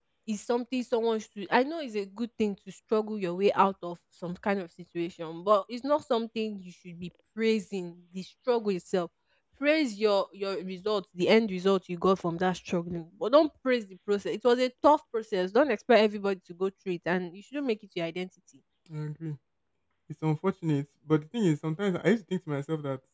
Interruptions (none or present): none